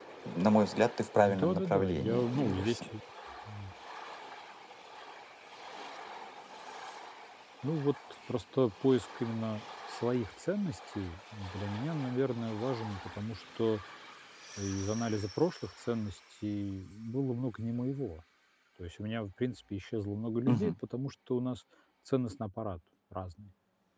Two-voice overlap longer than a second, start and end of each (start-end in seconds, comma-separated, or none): 1.2-2.8